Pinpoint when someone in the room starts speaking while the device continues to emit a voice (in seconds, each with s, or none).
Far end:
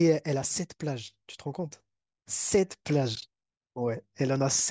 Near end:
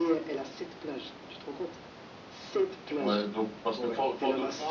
3.0 s